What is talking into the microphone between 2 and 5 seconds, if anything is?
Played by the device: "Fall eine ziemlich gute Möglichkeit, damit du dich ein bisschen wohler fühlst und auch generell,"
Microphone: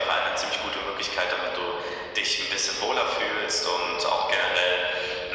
echo only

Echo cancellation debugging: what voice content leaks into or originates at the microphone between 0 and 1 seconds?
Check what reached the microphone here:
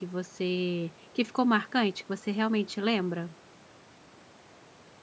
user only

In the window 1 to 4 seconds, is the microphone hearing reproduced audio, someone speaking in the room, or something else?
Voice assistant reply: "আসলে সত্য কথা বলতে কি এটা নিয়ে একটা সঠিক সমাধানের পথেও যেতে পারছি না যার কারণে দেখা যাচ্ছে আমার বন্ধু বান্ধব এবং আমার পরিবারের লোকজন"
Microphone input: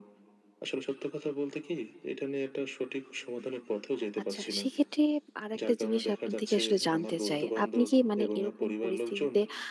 echo only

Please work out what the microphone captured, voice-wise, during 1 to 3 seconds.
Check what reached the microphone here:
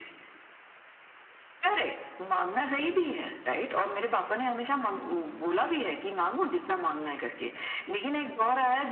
echo only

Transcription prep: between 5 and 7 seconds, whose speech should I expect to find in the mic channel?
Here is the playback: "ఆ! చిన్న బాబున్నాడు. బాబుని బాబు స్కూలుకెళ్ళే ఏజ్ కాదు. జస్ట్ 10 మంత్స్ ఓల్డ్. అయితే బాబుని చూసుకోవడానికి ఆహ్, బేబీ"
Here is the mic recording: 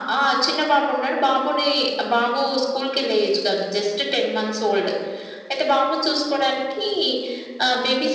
echo only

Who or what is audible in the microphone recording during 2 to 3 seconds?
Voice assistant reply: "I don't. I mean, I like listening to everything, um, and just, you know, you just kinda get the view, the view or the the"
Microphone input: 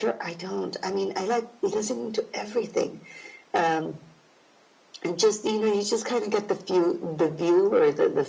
echo only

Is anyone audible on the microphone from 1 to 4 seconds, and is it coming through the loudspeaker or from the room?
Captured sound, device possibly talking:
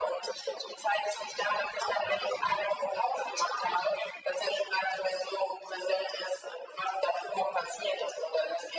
echo only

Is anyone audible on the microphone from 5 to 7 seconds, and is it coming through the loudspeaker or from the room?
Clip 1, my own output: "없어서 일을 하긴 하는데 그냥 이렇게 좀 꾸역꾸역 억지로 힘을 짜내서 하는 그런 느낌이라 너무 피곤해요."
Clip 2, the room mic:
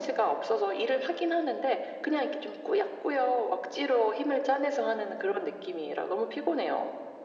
echo only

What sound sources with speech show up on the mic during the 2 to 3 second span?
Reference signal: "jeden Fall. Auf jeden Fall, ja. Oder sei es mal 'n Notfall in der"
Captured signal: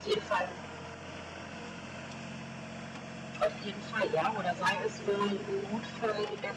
neither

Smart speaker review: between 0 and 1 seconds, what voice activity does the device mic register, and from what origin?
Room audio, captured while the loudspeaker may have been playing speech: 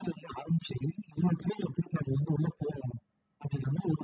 echo only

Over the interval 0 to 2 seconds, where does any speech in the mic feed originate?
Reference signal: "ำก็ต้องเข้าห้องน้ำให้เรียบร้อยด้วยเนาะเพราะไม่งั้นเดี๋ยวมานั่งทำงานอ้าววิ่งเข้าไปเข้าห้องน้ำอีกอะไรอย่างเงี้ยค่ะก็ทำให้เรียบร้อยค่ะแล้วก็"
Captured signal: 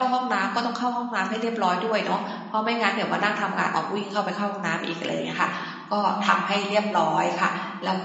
echo only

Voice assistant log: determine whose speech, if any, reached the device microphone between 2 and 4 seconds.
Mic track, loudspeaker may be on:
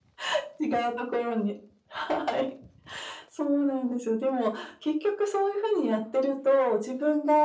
echo only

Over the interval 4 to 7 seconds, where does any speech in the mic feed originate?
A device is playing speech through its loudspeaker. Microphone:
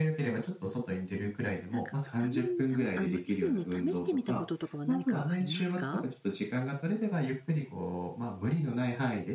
both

